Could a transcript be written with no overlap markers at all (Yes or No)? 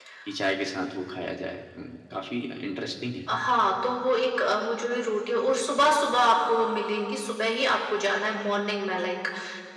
Yes